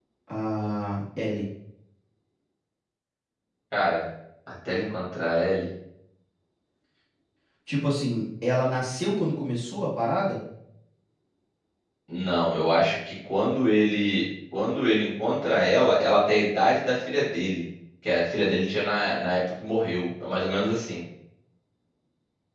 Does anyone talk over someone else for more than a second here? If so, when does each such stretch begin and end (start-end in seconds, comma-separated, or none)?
none